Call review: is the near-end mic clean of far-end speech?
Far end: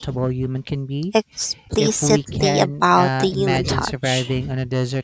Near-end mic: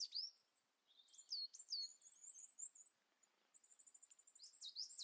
Yes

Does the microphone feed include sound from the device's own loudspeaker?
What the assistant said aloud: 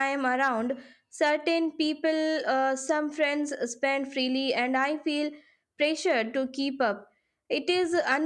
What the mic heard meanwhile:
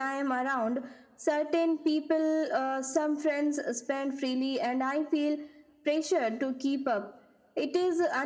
Yes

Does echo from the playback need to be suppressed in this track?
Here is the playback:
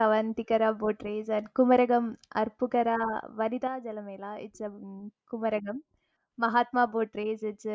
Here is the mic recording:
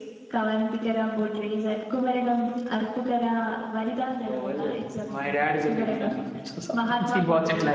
Yes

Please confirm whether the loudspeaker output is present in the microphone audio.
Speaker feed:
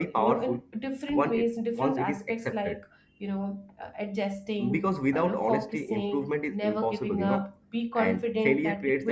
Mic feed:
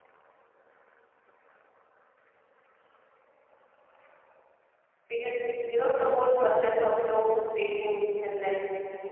No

